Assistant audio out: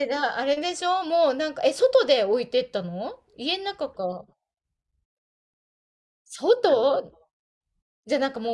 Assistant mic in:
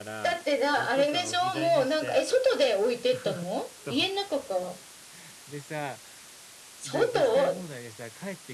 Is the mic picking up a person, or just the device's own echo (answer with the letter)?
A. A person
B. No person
A